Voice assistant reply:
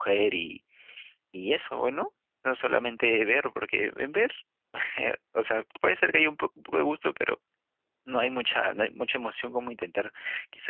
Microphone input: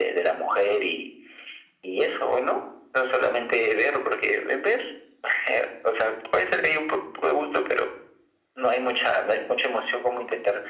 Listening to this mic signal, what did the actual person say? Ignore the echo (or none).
none